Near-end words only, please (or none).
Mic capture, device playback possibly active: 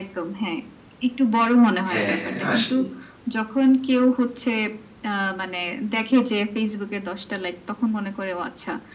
হ্যাঁ, হ্যাঁ। আসলেই।